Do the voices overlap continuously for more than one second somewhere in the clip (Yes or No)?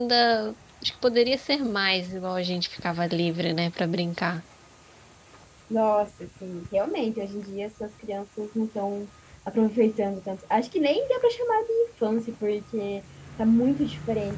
No